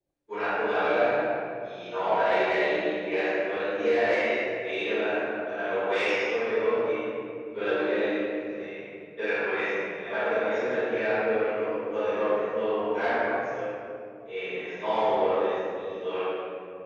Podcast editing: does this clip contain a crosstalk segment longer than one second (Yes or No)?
No